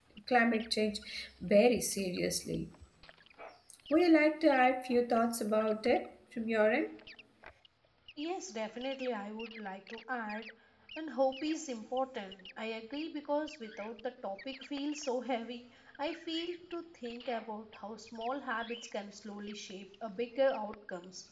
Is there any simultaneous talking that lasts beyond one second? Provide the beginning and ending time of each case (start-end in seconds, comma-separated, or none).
none